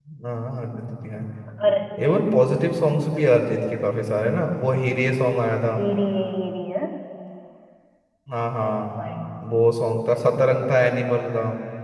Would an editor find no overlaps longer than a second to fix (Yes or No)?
Yes